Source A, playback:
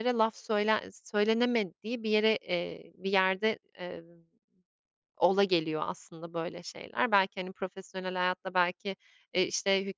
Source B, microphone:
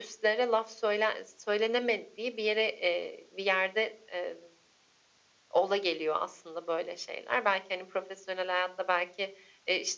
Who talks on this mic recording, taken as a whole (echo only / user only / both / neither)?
echo only